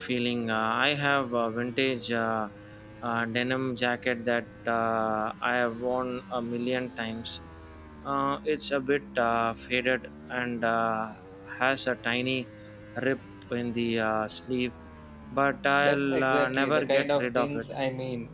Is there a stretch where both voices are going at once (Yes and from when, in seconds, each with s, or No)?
Yes, from 15.8 s